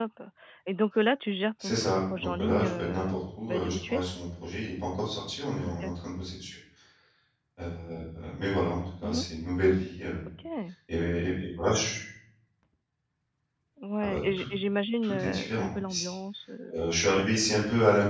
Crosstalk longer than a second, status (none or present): present